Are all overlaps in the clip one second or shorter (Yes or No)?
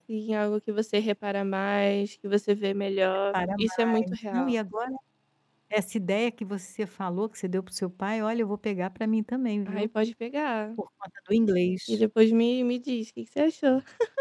No